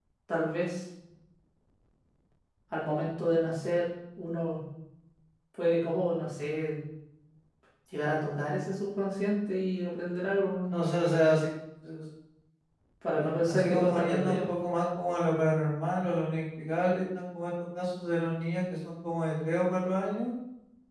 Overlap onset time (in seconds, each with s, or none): 13.2 s